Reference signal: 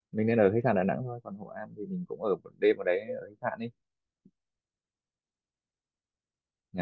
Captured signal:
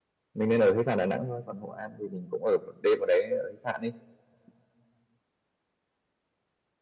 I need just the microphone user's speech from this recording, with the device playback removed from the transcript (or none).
none